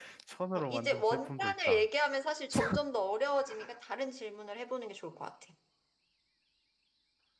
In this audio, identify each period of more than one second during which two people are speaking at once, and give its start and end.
0.6-1.9

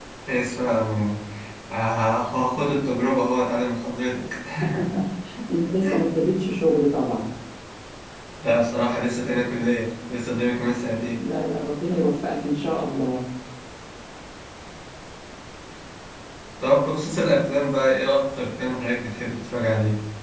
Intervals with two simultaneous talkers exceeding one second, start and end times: none

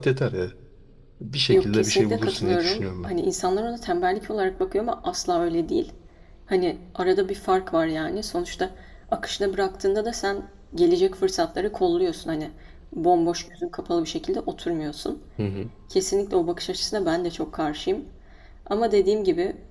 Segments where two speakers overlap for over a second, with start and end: 1.5-3.1

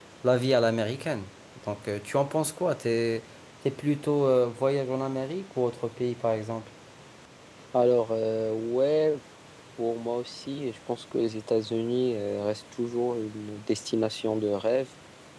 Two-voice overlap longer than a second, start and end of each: none

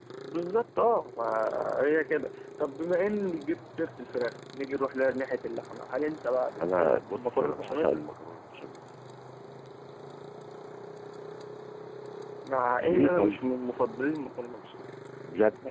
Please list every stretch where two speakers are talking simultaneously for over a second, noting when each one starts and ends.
6.6-7.9

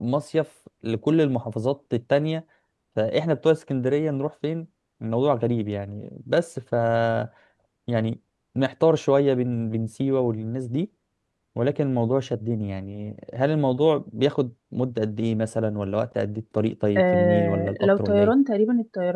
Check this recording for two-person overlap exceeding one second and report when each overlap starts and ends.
17.0-18.3

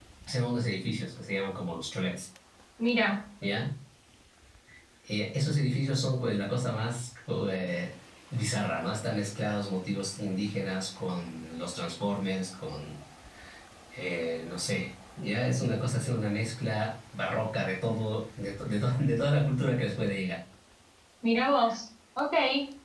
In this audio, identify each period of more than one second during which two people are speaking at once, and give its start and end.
none

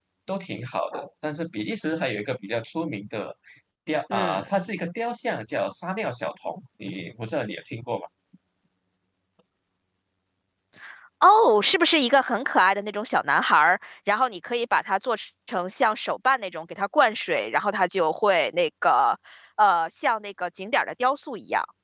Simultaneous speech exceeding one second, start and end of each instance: none

